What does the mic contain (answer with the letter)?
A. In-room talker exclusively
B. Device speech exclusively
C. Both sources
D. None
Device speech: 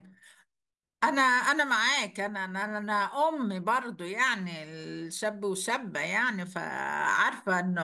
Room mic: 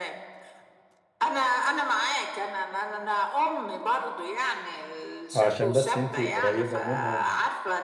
C